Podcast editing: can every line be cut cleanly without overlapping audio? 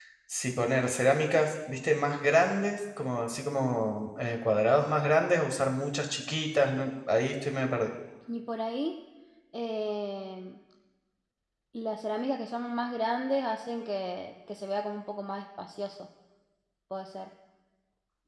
Yes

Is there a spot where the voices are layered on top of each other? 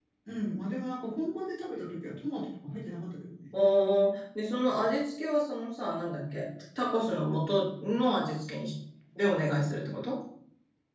No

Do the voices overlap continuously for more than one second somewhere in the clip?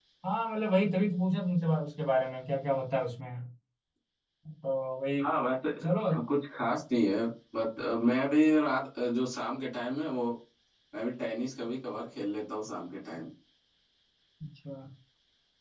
No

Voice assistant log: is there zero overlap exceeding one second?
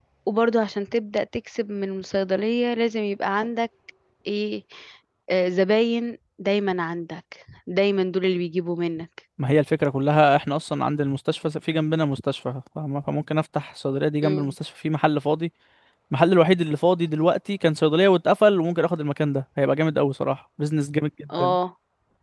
Yes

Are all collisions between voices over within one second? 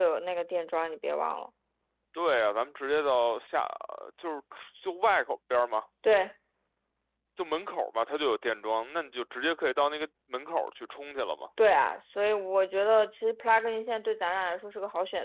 Yes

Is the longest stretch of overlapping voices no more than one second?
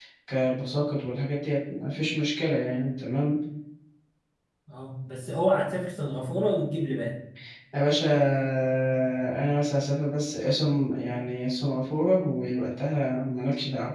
Yes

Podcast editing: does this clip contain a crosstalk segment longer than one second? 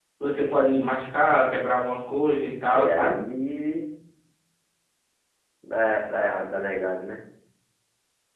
No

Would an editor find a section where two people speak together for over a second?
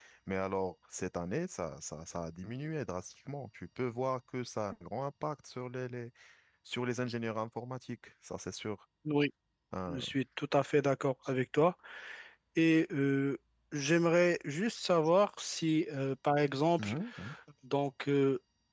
No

